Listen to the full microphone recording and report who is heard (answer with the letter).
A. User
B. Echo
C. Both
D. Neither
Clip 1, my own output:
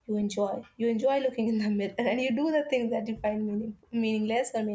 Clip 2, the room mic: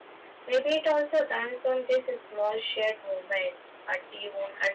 A